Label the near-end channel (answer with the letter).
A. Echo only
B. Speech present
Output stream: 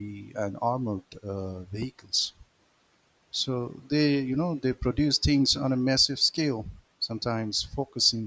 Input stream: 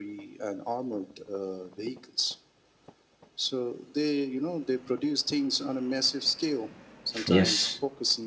B